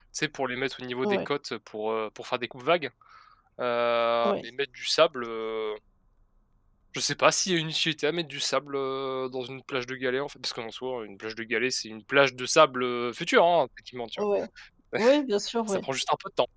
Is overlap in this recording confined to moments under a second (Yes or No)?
Yes